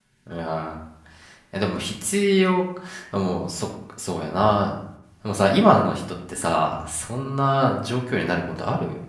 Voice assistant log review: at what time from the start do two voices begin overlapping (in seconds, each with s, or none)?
none